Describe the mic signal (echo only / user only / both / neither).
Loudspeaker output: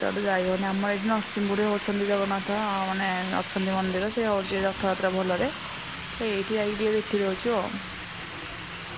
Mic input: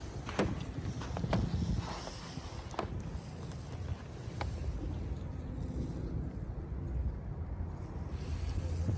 neither